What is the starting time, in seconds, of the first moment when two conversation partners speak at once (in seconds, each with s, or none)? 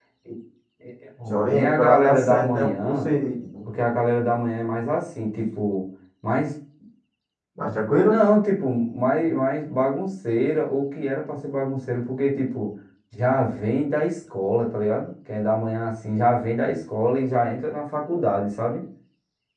1.3 s